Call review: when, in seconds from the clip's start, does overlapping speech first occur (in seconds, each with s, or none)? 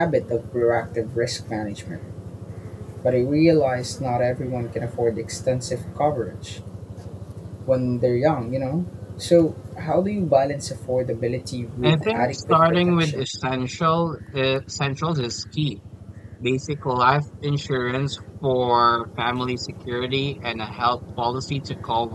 11.8 s